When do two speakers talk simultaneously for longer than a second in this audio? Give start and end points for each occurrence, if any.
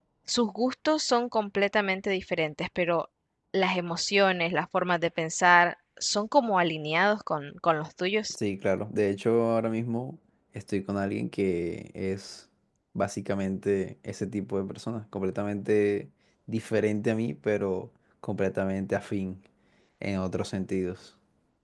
none

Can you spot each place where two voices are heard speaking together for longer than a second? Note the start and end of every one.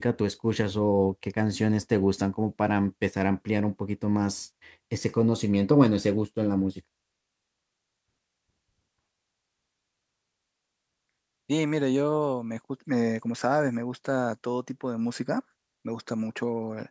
none

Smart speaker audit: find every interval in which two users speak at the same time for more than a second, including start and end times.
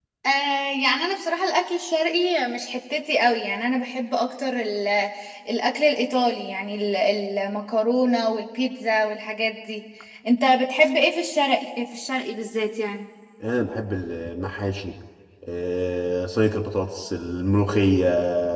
none

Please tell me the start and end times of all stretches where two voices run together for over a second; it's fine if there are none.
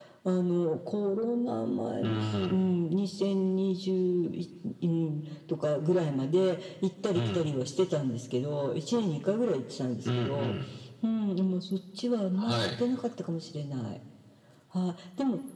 none

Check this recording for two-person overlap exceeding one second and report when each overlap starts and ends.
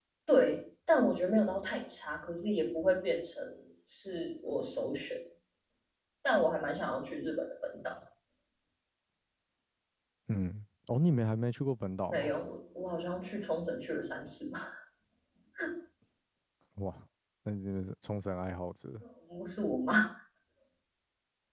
none

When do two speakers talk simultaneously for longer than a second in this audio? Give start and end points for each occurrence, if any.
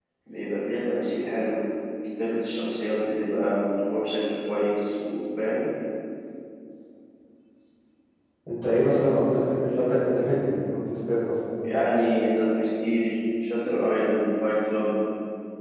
none

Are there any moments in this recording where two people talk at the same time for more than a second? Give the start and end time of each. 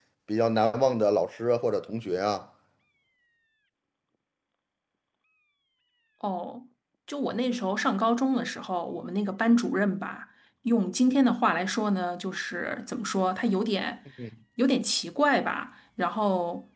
none

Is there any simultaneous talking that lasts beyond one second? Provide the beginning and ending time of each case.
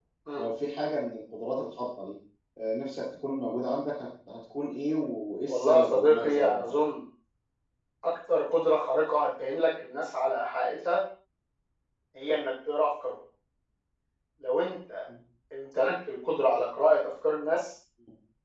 5.5-6.8

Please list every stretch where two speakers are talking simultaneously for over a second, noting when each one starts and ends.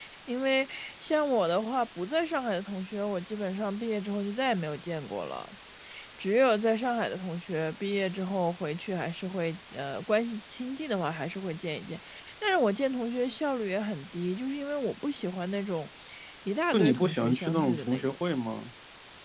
16.7-18.2

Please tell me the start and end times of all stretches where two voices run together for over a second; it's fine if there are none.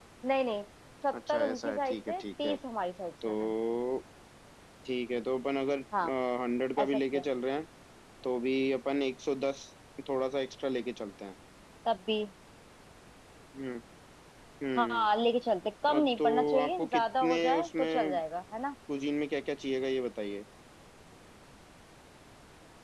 1.1-2.5, 16.0-18.2

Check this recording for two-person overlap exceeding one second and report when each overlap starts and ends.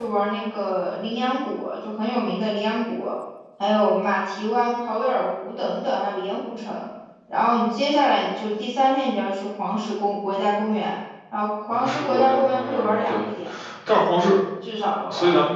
11.7-13.1

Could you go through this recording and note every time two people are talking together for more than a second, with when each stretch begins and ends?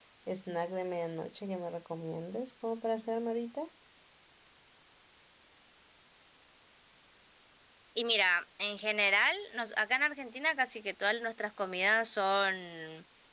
none

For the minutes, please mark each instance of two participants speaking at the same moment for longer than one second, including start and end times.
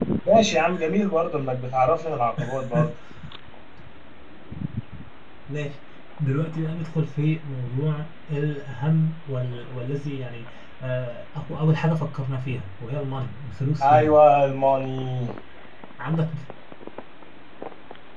none

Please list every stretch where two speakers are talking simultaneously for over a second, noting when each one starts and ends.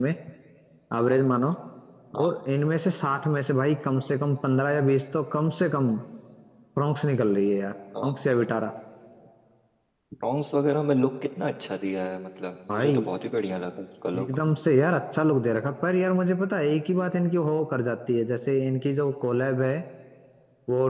none

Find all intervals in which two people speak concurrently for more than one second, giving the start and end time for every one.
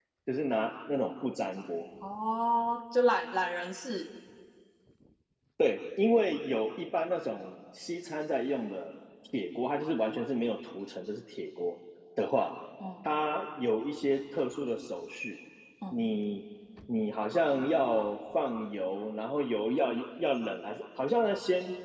none

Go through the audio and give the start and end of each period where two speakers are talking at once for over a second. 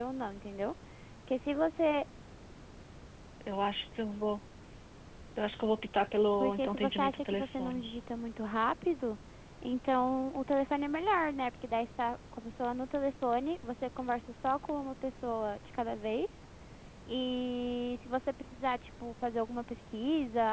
6.4-7.8

